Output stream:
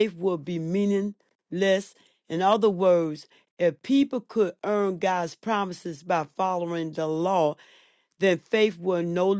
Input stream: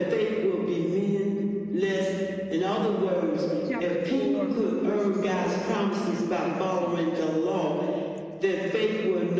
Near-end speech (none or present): present